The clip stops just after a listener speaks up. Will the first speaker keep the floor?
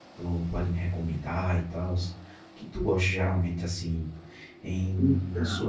Yes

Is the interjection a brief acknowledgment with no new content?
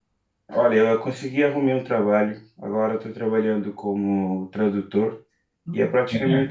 Yes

